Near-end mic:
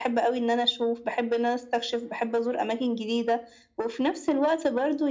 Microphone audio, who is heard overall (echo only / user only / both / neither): echo only